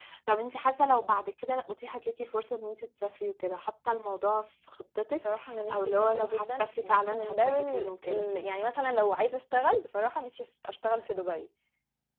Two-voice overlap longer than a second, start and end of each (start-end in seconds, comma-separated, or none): 5.7-8.2